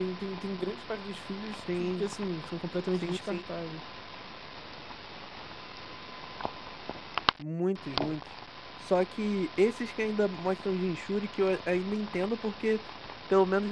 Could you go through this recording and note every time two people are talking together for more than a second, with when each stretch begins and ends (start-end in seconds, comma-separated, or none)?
none